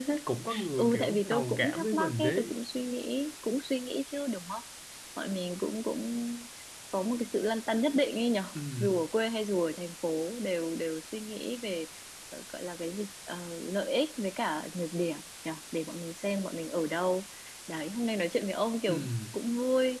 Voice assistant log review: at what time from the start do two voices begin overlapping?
1 s

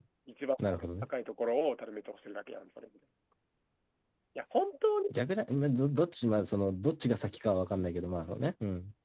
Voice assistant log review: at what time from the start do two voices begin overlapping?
none

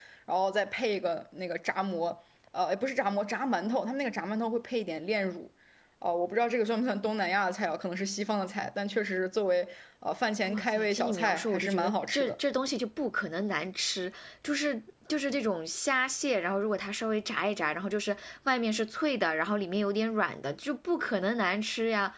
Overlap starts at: 10 s

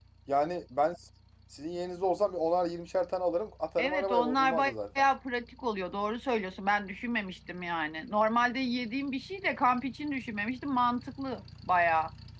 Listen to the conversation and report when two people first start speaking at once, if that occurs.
4 s

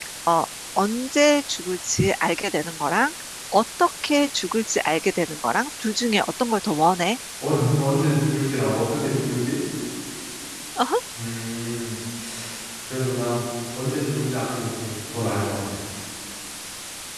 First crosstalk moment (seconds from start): none

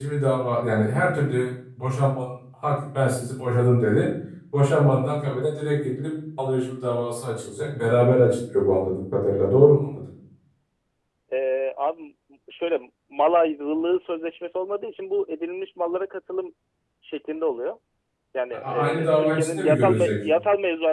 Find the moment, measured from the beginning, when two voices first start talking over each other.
19 s

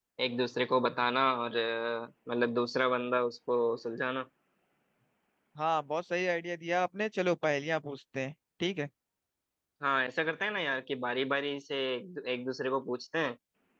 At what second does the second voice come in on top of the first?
none

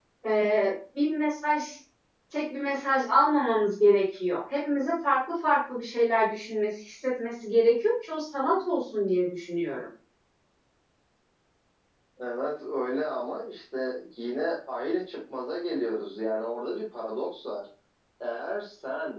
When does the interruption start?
none

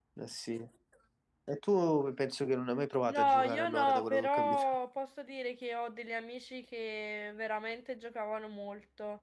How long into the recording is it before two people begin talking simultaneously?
3 s

